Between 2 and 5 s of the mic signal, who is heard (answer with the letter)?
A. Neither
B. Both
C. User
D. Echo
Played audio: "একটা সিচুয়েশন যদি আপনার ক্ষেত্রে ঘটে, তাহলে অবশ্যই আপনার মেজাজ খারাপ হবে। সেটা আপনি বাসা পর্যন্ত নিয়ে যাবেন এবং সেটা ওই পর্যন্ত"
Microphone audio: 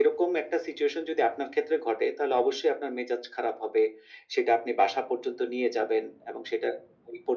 D